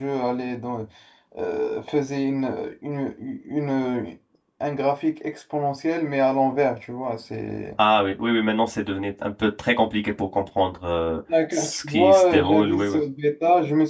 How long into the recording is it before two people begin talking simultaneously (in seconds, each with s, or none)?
11.3 s